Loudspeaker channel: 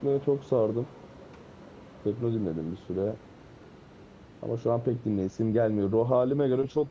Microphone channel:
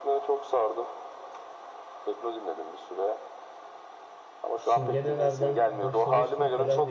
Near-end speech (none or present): present